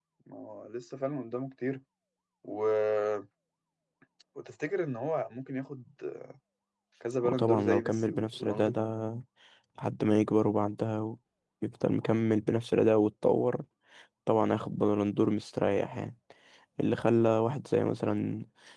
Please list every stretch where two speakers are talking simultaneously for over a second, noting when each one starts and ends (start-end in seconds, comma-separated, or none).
7.3-8.8